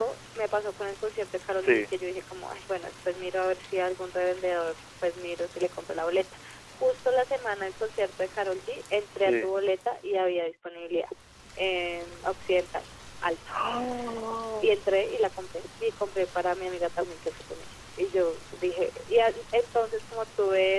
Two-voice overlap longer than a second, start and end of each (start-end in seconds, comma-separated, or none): none